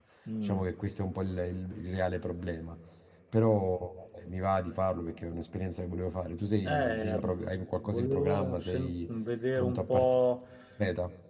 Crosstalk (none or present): present